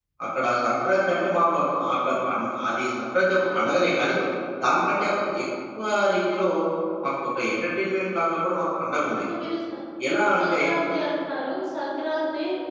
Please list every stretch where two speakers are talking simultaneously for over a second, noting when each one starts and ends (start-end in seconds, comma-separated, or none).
none